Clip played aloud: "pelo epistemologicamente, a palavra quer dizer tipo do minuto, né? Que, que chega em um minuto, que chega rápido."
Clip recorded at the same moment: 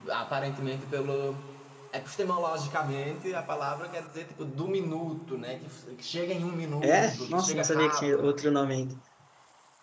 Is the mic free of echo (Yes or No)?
No